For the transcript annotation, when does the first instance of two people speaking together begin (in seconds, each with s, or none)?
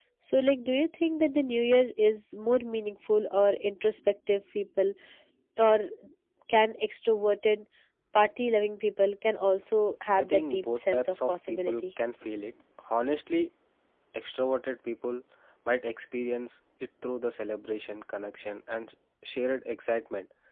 10.2 s